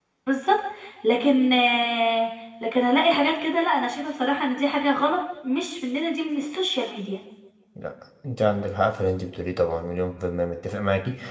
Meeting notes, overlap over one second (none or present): none